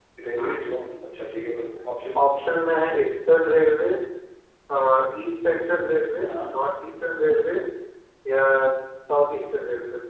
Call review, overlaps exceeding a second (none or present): none